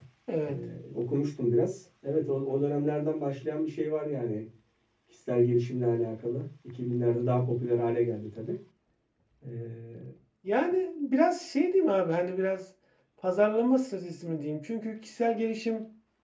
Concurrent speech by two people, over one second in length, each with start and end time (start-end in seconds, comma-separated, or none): none